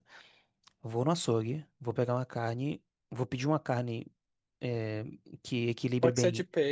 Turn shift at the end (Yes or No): Yes